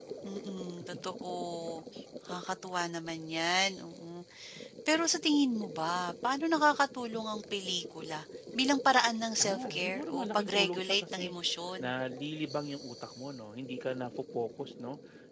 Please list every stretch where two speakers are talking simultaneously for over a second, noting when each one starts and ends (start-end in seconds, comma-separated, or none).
9.4-11.3